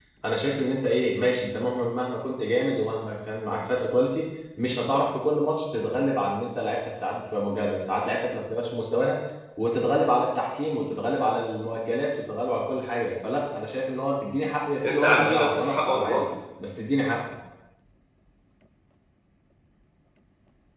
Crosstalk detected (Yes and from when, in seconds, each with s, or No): Yes, from 14.8 s